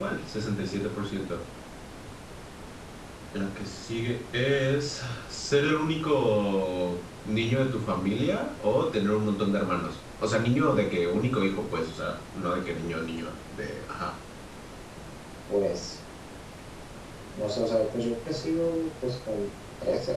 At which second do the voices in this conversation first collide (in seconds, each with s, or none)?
none